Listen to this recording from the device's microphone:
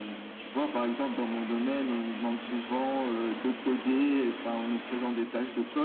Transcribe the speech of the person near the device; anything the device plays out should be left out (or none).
none